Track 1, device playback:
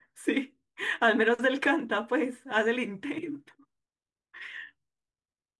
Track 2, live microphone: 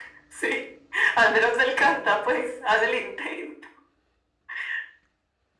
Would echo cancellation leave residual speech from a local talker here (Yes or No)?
No